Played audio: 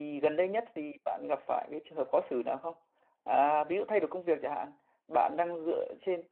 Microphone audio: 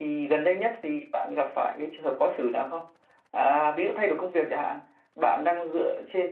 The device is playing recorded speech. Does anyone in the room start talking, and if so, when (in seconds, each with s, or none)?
none